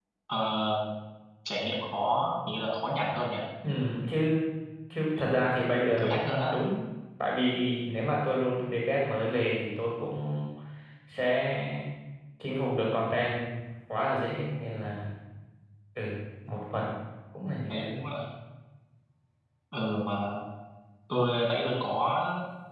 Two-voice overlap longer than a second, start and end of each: none

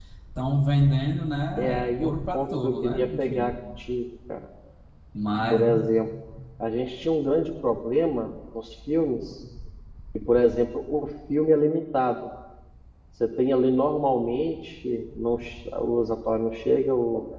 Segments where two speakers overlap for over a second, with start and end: 1.6-3.5

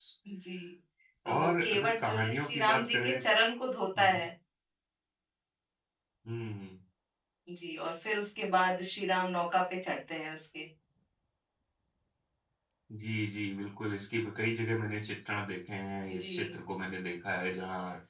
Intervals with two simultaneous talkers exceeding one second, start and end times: 1.3-3.1

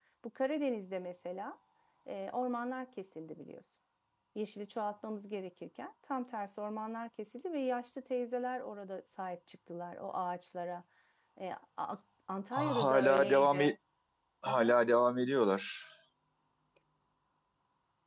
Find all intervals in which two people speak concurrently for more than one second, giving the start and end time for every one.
12.5-13.7

